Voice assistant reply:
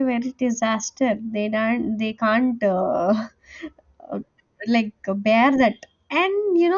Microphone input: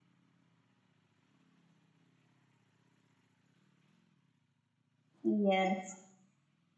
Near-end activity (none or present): present